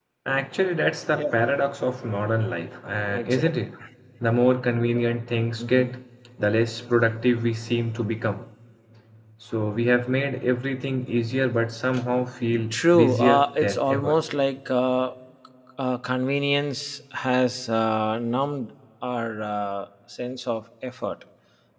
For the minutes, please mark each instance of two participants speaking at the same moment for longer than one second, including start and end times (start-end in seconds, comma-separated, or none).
12.7-14.2